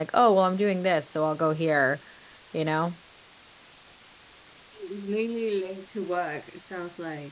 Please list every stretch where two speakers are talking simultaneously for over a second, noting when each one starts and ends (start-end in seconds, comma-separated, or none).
none